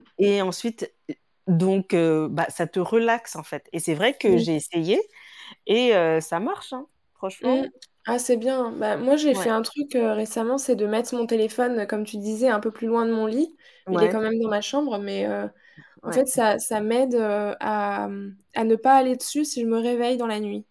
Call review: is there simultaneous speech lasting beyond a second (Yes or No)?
No